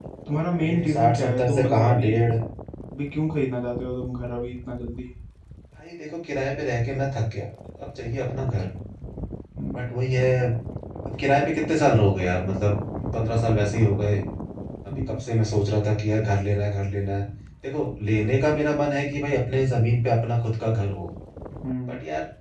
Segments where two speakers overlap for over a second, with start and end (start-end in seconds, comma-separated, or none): 0.6-2.1